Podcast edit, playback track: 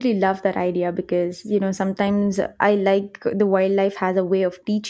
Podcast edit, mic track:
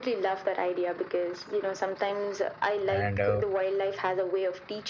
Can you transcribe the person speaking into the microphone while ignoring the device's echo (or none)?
And uh,